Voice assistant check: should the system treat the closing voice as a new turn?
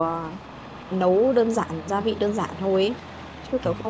No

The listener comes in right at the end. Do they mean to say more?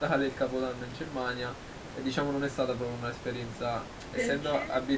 No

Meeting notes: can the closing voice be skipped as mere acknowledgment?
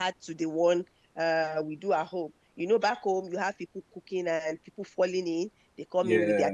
Yes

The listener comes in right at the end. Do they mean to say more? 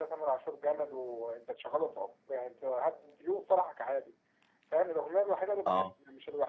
No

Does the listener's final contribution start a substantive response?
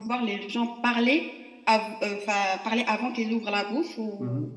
Yes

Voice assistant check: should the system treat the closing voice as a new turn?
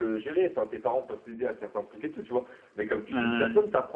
No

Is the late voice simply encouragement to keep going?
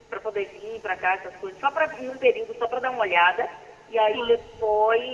Yes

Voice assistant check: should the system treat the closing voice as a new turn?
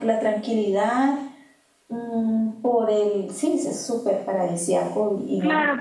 Yes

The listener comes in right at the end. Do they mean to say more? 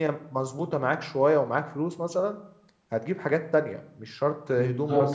Yes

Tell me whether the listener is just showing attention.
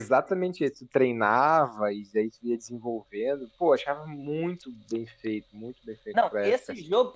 No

